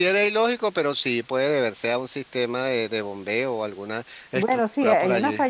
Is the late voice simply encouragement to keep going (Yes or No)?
No